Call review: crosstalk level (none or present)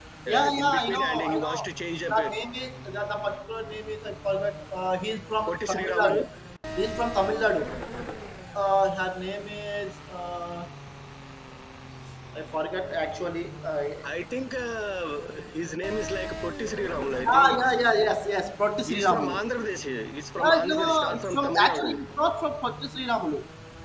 present